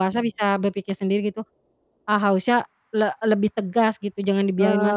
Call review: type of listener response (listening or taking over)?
taking over